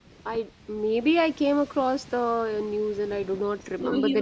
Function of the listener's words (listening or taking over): taking over